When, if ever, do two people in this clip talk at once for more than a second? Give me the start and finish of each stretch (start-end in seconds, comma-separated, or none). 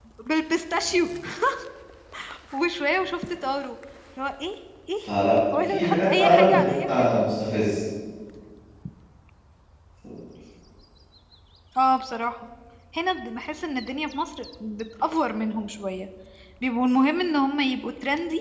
5.7-7.2